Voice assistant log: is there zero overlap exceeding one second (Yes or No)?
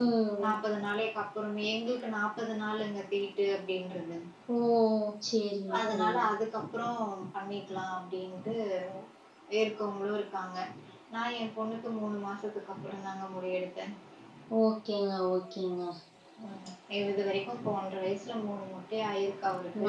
Yes